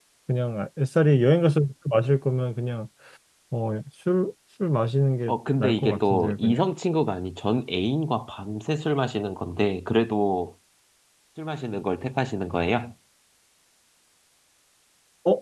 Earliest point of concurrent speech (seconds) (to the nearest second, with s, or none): 5 s